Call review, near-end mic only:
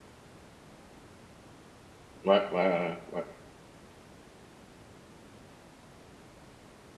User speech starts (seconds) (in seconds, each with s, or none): 2.2 s